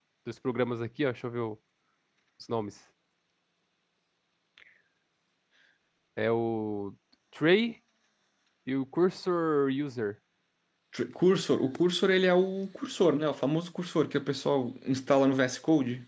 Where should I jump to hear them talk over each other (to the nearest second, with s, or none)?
none